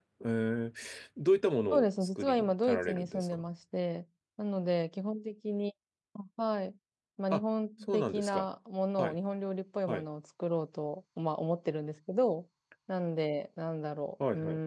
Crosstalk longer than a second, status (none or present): present